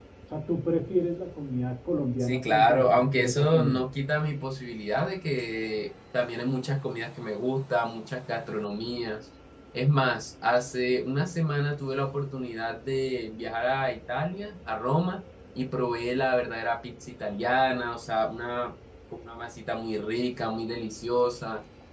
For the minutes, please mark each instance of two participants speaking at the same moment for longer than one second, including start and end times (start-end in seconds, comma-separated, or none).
2.2-3.9